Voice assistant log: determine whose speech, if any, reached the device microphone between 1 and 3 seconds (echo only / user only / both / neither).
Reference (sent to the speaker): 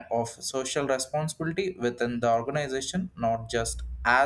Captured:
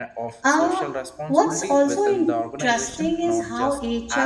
both